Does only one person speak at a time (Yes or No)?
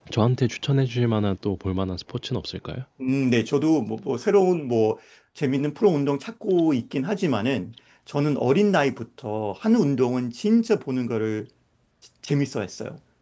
Yes